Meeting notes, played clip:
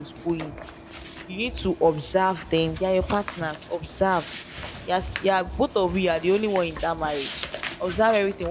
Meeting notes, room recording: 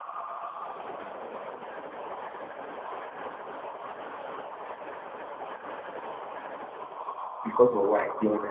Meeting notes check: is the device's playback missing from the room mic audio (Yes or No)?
Yes